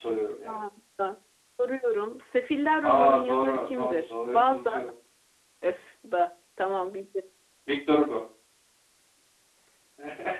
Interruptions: present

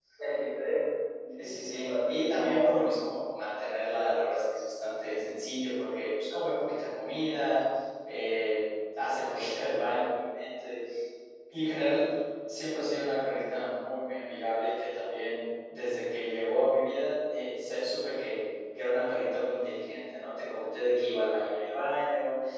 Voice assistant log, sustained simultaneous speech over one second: present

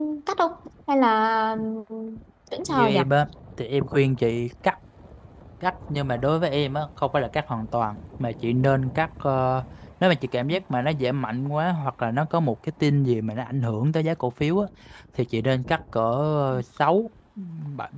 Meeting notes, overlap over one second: none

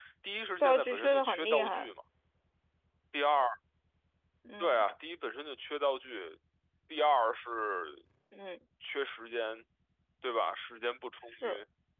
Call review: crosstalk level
present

